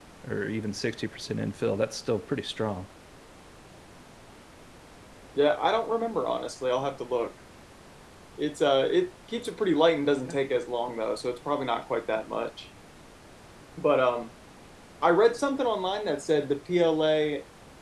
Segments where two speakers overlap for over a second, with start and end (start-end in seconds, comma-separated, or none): none